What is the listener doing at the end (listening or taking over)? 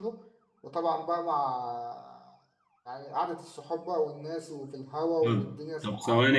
taking over